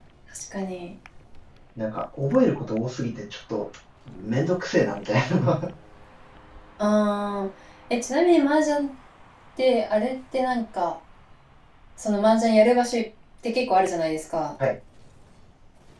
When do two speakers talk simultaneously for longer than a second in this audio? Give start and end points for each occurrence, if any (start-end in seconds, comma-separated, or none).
none